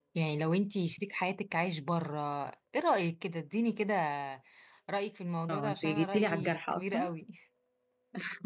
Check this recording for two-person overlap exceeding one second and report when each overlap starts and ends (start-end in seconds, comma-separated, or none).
5.5-7.1